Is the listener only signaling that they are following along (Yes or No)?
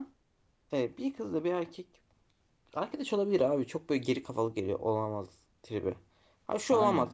Yes